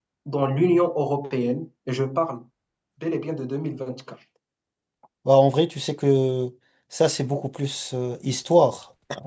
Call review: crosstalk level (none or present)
none